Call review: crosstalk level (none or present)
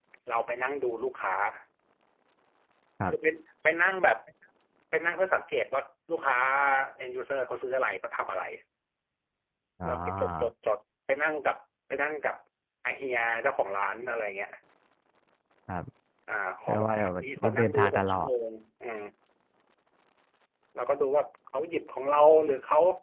present